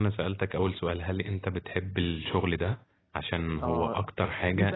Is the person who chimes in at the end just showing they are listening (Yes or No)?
No